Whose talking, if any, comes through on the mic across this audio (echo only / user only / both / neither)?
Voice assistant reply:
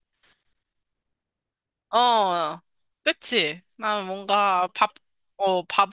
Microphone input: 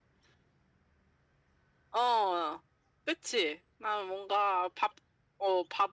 echo only